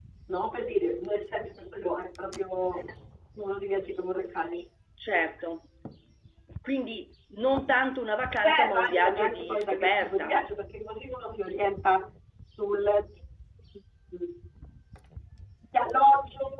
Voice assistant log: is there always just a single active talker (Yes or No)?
No